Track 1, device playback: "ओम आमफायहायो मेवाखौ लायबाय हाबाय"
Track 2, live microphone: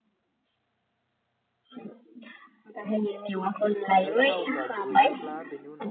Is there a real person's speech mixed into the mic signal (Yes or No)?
Yes